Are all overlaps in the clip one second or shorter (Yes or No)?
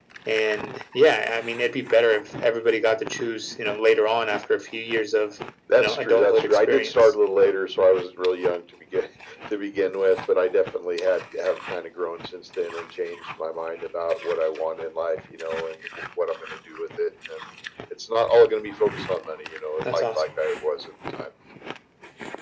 No